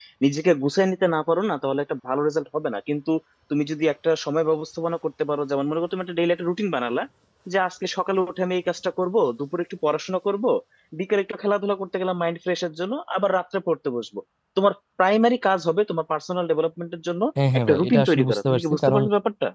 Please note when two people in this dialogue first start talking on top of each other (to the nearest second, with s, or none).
18 s